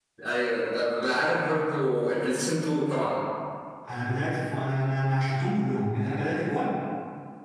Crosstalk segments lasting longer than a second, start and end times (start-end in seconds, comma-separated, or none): none